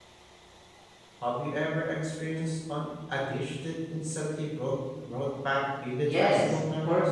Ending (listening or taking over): taking over